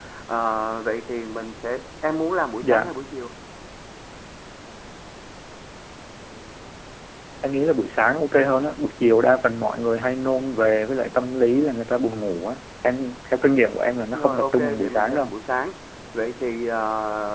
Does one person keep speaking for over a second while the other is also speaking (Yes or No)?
Yes